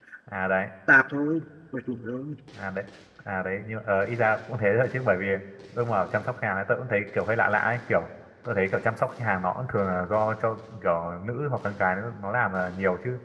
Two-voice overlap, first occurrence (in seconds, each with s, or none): none